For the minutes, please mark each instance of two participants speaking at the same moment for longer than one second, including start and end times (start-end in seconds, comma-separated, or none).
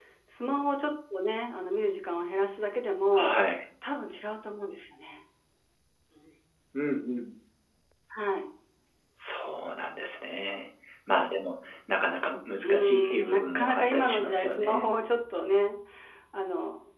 12.6-14.9